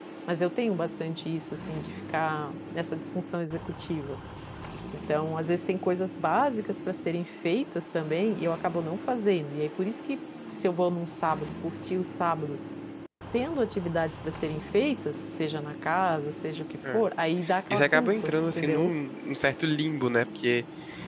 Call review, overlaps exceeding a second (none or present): present